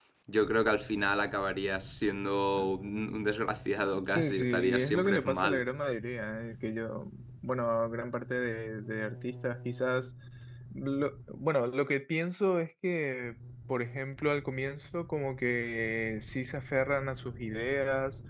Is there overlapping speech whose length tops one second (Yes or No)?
Yes